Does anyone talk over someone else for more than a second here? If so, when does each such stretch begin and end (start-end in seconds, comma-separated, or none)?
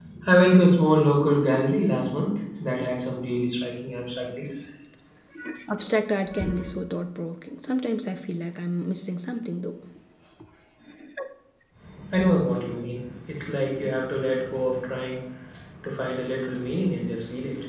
none